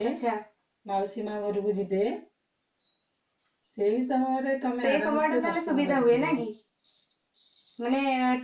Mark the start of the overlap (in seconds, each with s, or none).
4.8 s